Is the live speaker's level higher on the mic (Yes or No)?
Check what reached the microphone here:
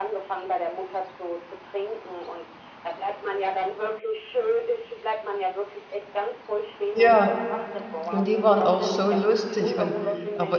Yes